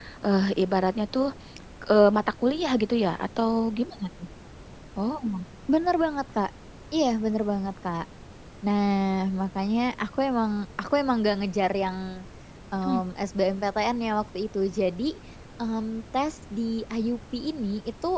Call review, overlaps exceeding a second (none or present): none